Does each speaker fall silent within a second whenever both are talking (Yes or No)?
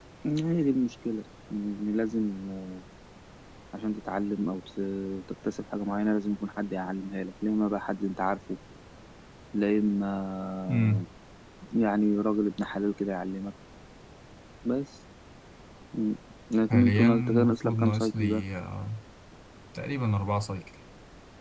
No